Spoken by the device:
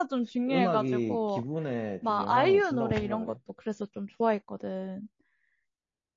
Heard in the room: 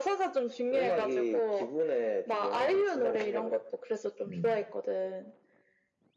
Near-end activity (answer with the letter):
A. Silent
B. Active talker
B